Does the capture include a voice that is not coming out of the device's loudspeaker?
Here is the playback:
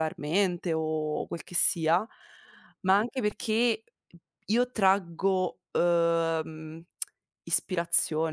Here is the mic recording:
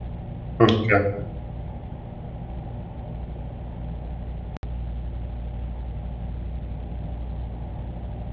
Yes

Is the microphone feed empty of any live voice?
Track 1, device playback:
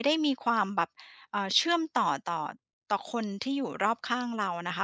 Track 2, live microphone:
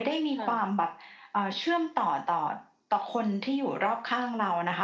No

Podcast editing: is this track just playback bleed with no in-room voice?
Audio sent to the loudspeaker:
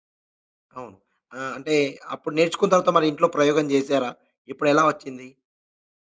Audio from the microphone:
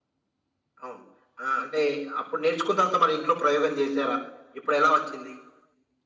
Yes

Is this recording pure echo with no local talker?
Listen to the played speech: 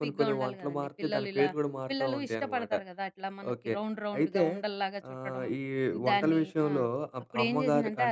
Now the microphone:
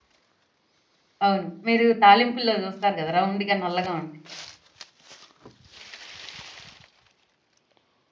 No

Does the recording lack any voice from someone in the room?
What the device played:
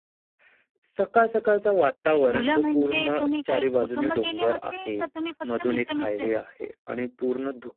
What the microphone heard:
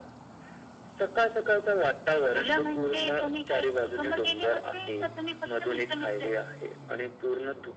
Yes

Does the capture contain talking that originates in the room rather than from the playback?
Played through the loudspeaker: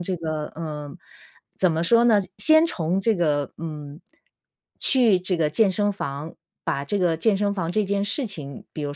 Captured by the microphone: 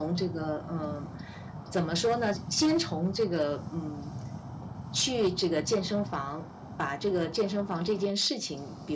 No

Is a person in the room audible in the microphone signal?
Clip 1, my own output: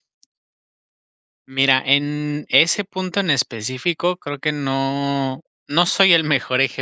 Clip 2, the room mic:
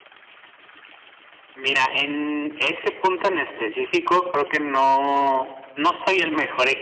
No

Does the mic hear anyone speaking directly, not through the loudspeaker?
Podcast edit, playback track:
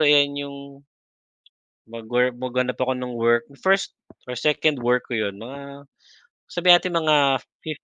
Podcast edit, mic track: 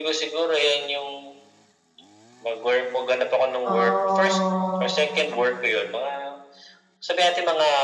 Yes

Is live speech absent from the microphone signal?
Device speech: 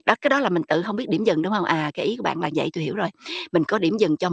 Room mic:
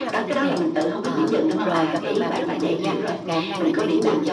No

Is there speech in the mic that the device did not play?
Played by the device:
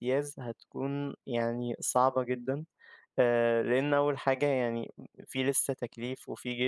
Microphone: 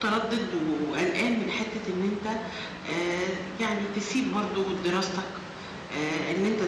Yes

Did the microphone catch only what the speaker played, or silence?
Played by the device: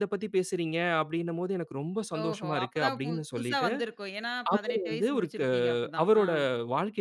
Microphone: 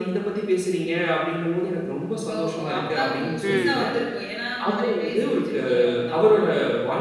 No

